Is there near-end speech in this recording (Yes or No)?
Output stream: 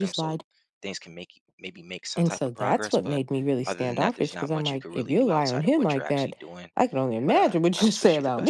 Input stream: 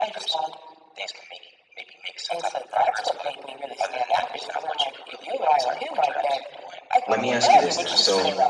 Yes